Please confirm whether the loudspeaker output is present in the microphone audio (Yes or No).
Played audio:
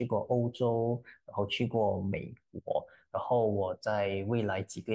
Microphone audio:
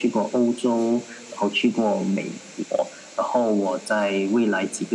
Yes